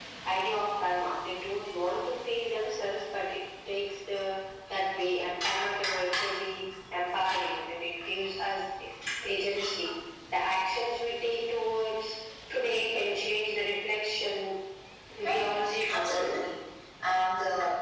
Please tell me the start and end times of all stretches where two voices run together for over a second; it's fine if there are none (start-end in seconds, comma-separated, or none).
none